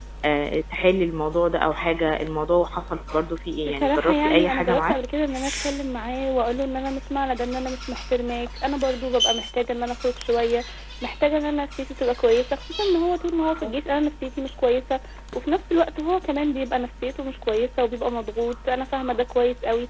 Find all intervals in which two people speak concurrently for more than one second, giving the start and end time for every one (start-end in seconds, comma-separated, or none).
3.6-5.0